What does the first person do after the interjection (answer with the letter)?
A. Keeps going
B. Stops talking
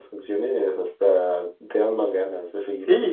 B